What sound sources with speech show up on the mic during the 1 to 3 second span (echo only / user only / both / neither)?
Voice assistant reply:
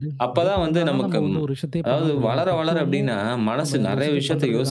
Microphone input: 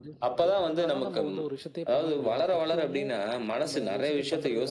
echo only